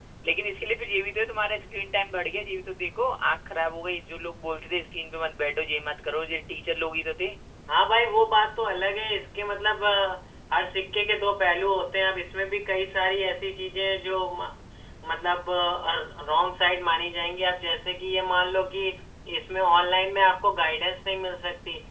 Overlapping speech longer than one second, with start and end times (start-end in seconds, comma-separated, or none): none